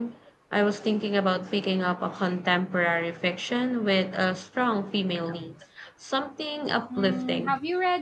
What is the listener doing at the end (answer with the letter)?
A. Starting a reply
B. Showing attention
A